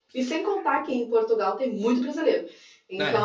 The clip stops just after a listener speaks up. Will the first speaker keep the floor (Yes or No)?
Yes